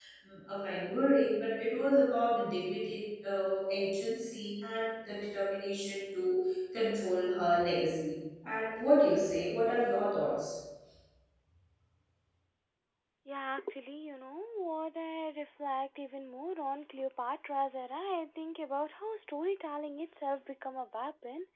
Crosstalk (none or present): none